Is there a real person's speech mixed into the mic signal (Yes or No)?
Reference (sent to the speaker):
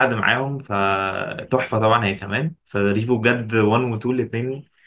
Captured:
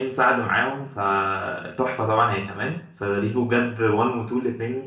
No